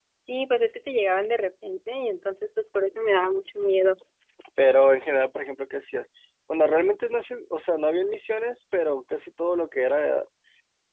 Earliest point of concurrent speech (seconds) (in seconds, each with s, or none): none